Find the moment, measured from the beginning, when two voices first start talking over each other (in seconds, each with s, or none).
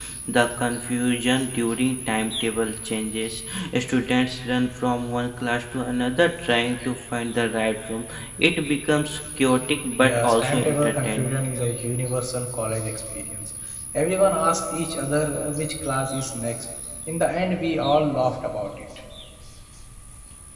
9.9 s